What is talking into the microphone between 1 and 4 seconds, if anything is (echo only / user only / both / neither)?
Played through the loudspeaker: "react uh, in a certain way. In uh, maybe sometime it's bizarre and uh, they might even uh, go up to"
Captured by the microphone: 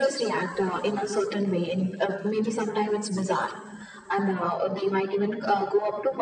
echo only